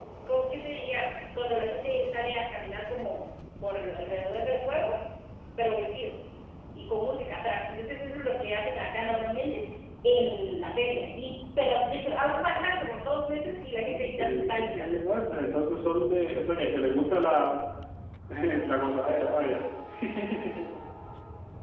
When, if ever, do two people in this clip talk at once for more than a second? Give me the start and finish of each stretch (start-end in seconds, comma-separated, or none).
13.7-15.0